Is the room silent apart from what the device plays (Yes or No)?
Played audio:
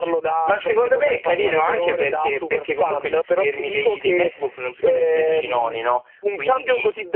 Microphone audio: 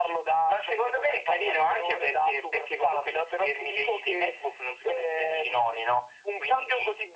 Yes